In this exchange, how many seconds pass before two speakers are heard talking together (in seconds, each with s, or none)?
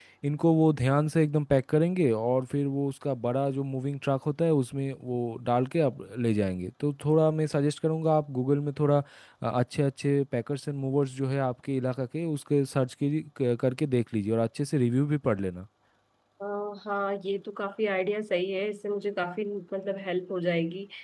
none